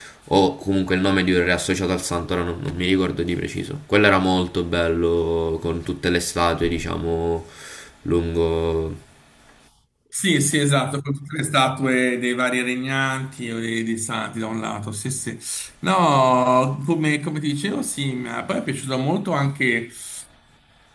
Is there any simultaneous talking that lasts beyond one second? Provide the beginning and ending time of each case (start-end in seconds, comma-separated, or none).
none